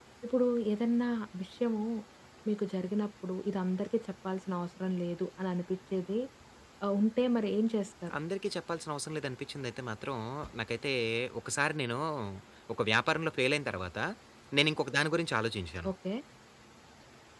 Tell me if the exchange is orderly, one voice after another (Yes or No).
Yes